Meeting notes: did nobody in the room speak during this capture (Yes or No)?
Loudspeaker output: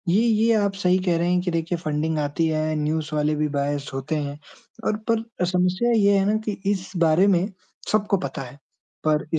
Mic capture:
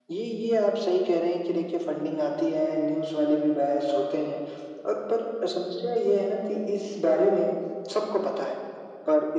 Yes